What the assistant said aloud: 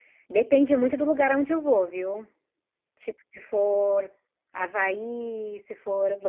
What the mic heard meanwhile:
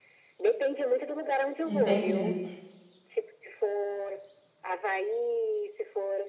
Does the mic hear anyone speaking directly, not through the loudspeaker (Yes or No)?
Yes